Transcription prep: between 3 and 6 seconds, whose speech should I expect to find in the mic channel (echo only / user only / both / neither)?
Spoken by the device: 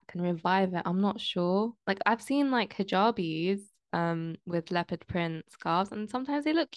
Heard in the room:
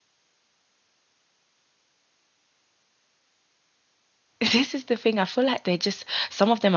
user only